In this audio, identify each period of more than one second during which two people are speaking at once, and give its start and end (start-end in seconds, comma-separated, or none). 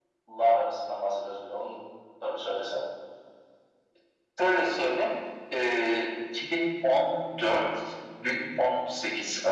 none